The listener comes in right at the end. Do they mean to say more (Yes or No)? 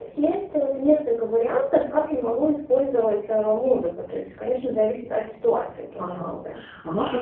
Yes